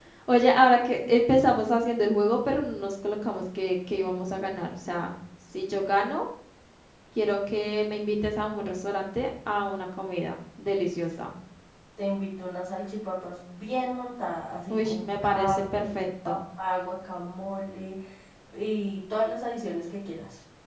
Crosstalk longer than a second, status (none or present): present